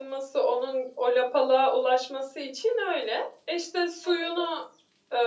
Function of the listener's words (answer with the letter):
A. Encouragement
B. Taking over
A